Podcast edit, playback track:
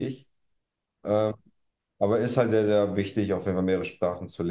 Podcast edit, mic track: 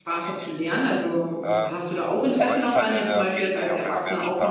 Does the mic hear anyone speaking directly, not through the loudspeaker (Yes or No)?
Yes